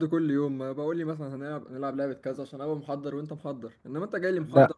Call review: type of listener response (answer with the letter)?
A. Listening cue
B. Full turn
B